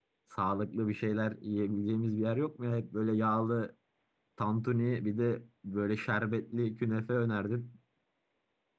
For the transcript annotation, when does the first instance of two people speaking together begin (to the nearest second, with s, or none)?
none